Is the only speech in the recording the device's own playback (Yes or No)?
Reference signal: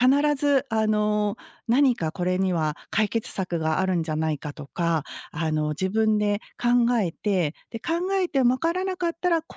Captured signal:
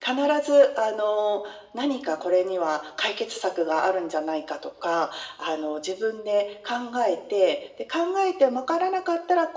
Yes